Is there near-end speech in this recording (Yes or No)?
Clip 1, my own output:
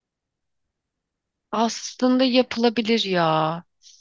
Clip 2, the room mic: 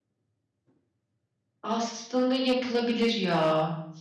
No